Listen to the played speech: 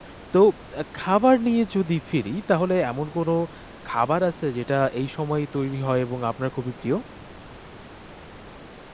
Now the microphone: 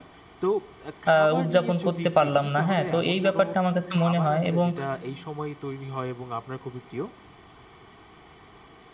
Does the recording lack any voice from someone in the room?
No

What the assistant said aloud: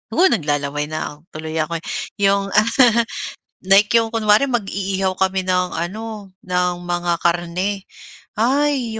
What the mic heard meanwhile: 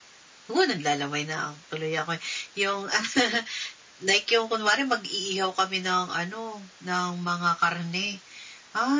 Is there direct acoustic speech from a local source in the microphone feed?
No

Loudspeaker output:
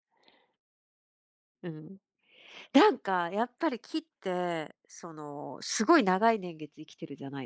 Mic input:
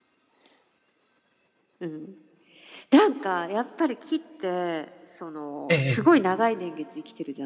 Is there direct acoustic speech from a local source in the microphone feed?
Yes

